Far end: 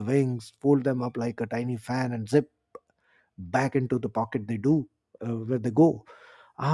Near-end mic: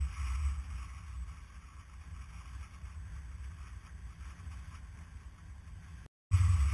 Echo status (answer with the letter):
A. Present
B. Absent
B